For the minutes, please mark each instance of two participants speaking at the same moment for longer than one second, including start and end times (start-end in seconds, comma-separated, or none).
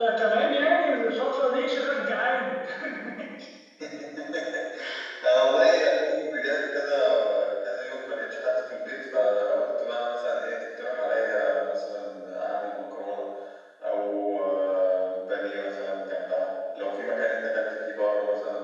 none